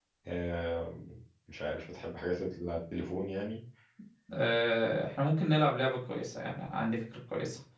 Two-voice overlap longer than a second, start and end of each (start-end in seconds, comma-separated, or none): none